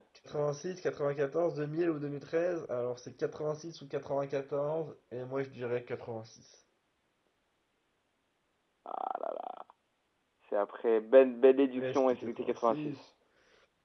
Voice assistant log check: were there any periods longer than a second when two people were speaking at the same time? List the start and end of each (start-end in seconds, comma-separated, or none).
11.8-13.0